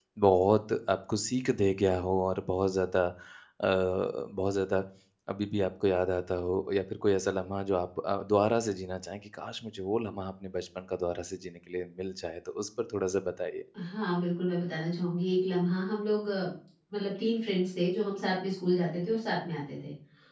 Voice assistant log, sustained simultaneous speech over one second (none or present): none